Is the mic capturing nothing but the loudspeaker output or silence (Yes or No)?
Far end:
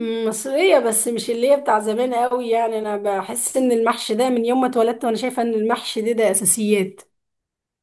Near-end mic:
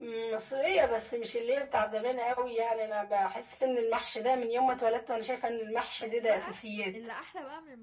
No